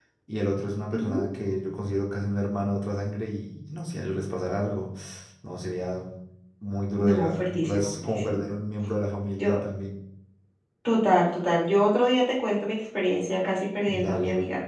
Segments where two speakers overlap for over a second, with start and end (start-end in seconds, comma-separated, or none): 7.0-8.4